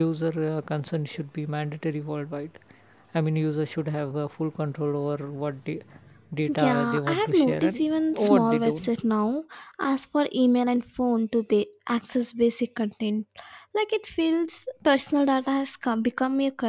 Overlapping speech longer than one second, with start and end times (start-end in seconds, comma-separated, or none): 6.6-9.0